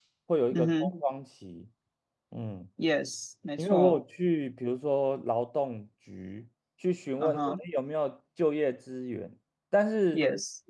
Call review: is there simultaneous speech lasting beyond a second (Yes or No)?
No